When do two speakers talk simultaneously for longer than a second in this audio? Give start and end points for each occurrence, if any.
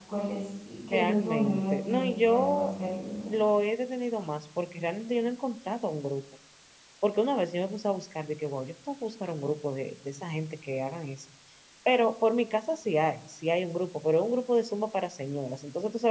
0.9-2.7

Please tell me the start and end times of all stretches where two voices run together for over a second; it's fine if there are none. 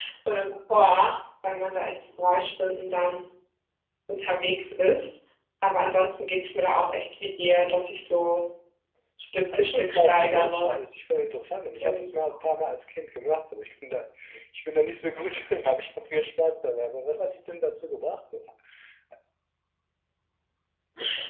9.5-10.7

